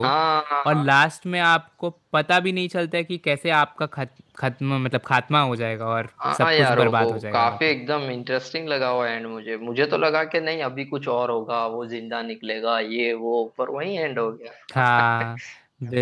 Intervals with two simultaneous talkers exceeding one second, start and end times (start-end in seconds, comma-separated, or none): 6.3-7.6